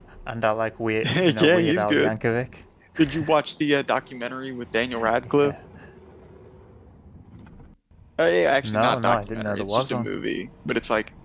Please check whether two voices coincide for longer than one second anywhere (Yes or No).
Yes